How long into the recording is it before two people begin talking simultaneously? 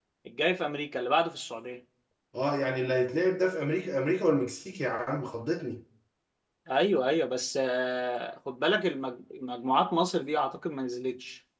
none

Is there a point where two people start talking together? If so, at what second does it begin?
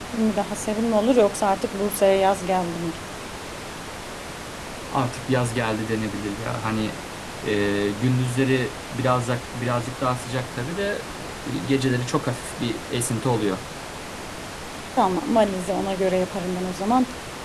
none

